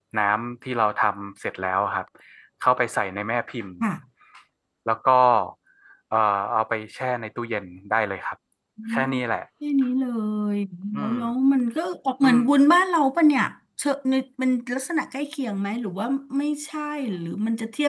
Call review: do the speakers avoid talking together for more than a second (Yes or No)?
Yes